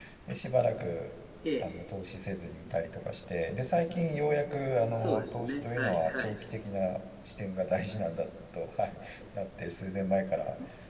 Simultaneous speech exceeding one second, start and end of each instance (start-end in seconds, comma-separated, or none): 5.0-6.3